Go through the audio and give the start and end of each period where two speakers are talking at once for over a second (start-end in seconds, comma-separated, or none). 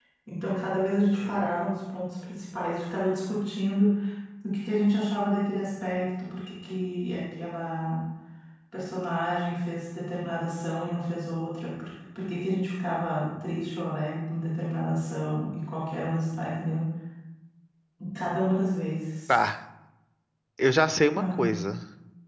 none